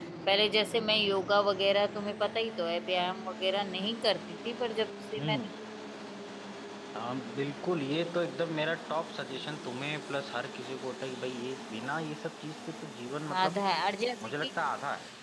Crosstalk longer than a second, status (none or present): none